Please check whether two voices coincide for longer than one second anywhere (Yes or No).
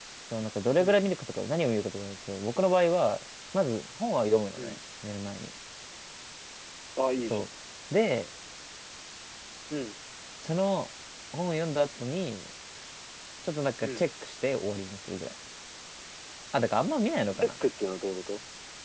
No